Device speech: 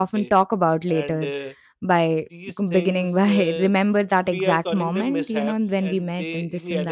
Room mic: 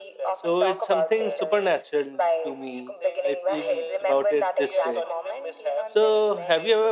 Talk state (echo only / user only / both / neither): both